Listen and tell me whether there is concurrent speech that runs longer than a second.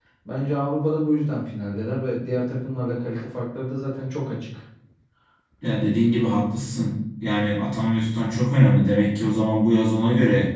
No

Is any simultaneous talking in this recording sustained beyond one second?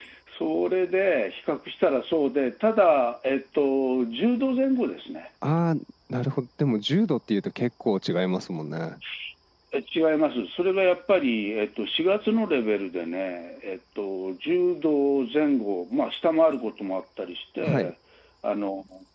No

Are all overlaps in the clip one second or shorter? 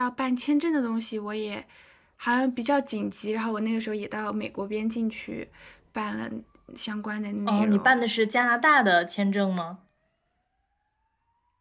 Yes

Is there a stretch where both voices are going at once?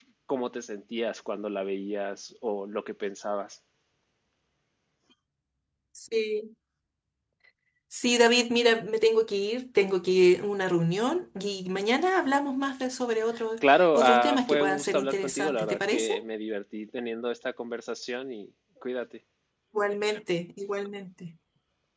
Yes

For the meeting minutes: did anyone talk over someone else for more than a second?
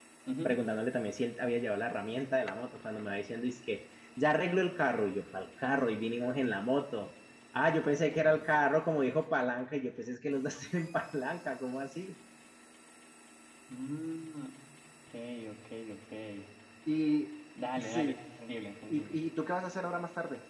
No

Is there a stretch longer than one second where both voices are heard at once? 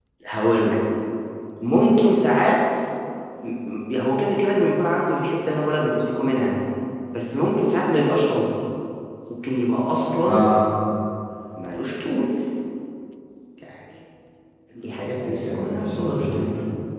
Yes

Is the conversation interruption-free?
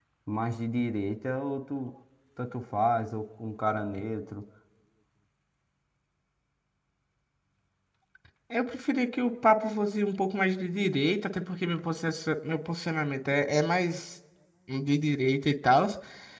Yes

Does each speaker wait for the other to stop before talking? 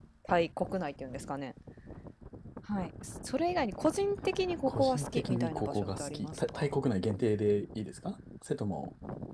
No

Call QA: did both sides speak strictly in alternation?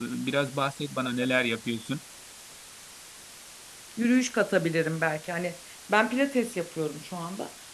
Yes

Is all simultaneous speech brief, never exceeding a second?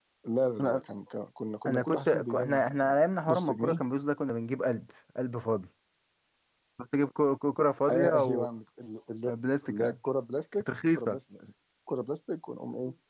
No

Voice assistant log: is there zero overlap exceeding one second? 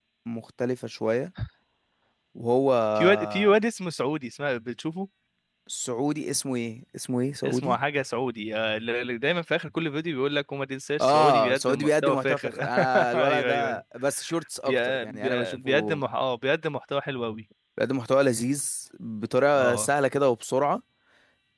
No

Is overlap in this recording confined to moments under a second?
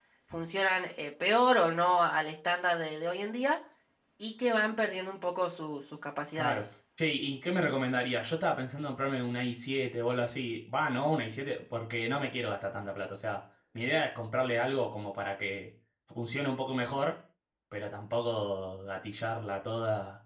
Yes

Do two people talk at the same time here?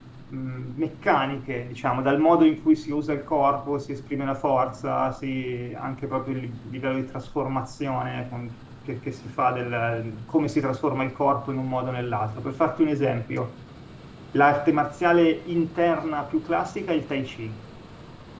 No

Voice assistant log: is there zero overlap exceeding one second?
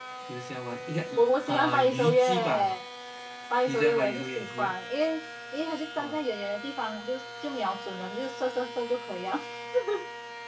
No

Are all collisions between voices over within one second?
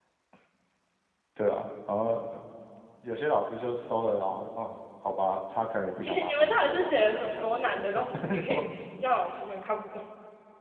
No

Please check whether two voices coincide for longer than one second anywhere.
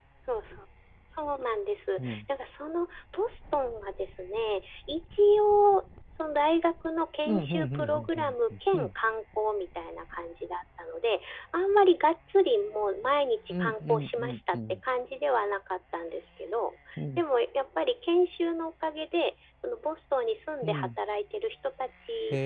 Yes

